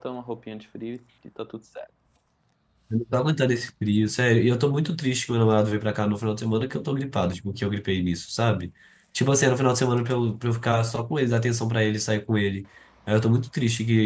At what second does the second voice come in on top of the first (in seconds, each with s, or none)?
none